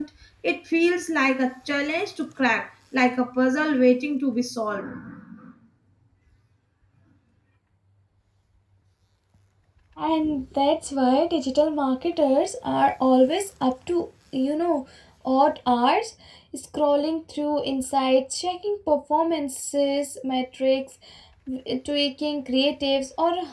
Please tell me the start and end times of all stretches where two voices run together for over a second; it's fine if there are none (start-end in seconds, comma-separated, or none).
none